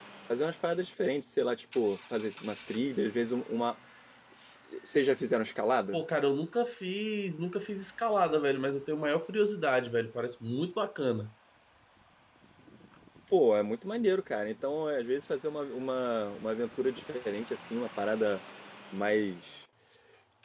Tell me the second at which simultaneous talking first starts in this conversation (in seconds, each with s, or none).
none